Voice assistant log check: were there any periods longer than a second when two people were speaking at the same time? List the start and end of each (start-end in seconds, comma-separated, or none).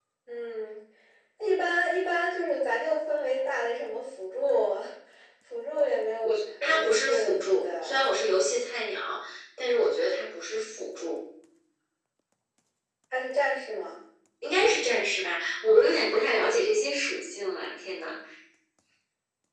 6.7-8.0